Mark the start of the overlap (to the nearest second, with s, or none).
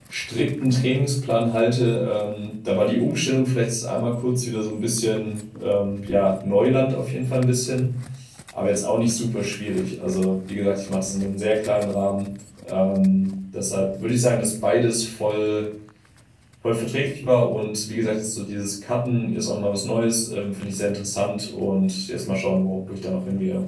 none